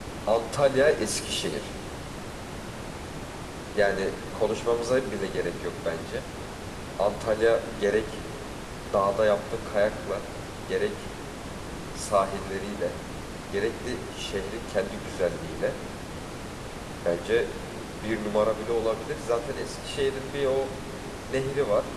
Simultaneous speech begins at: none

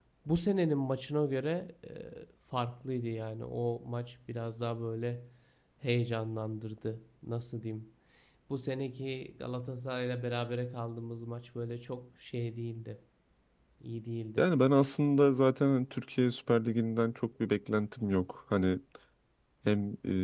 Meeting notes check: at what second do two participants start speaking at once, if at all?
none

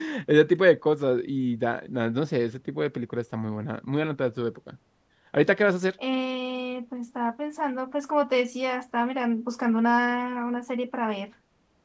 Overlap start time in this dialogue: none

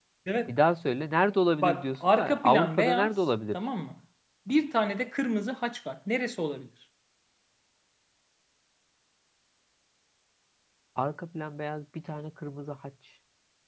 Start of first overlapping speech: 1.6 s

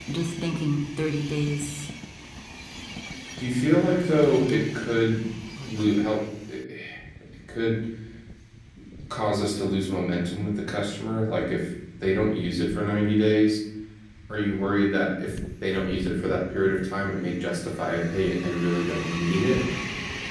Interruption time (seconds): 3.6 s

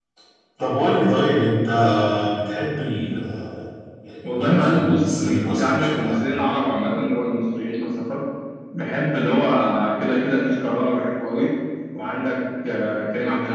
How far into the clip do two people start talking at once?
4.3 s

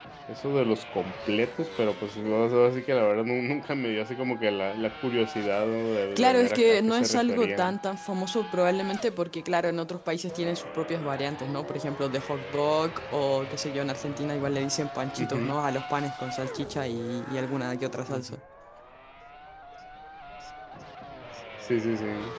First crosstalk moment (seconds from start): 6.2 s

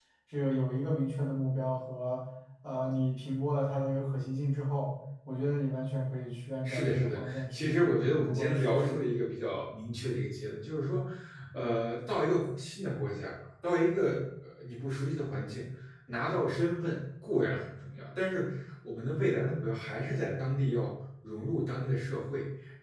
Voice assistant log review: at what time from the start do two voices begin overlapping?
6.7 s

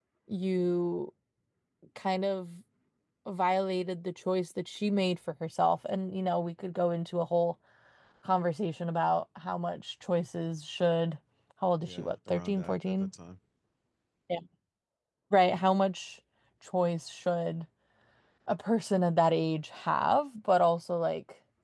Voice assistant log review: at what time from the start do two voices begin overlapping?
11.9 s

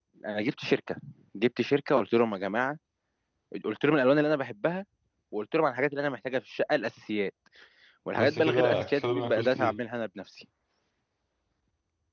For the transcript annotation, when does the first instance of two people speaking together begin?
8.2 s

